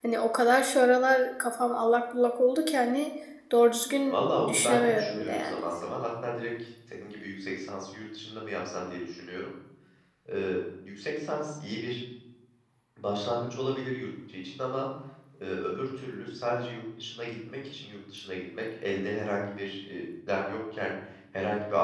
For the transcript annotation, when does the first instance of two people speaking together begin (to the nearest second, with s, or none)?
4 s